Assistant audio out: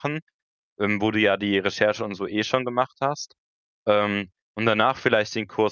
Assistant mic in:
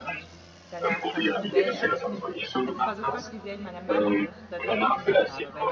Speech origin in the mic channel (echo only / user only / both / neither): both